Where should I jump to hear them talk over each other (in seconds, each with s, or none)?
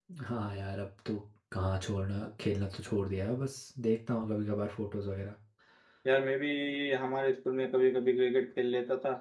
none